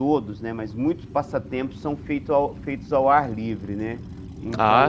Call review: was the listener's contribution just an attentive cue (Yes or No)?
Yes